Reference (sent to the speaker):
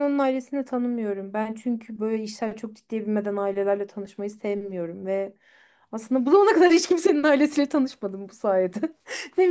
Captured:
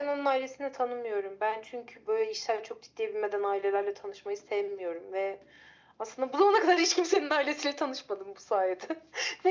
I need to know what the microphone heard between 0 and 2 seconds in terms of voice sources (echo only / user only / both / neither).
echo only